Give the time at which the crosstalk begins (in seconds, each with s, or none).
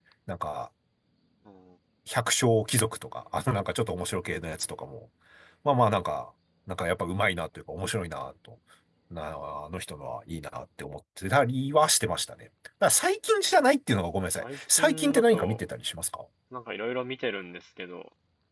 14.3 s